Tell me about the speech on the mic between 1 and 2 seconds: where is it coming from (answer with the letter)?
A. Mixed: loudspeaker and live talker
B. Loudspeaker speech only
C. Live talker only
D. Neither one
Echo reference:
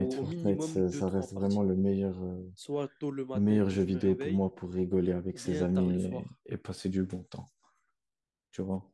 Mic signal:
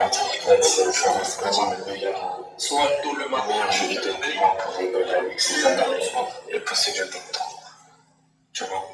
B